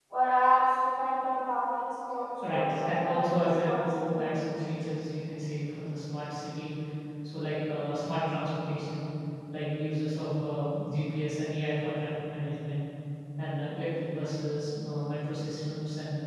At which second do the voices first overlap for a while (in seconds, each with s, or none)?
2.4 s